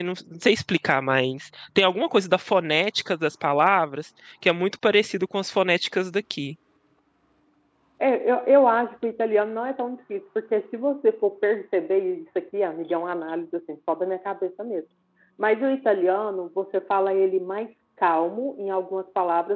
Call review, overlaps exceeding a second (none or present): none